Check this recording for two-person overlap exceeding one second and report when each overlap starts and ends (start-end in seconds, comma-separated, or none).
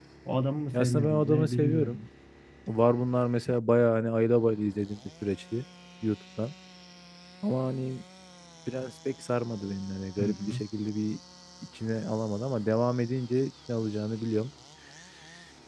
0.7-2.0